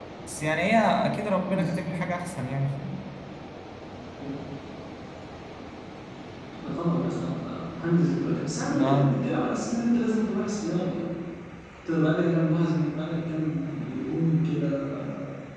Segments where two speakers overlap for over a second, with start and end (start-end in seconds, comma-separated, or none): none